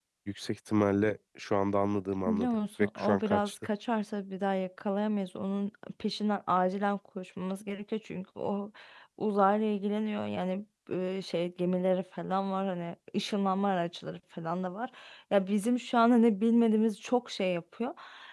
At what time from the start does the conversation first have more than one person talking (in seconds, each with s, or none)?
2.3 s